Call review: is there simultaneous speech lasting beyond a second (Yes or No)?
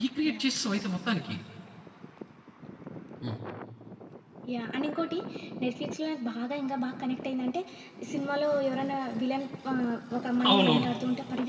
No